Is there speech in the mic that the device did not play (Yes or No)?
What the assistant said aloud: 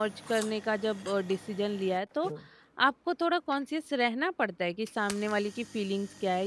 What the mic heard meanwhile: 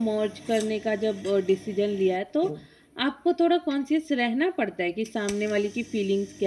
No